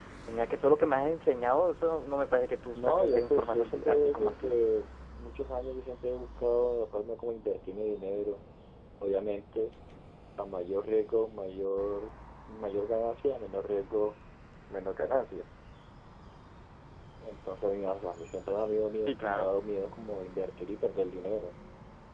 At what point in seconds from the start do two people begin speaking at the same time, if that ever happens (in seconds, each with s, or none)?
2.8 s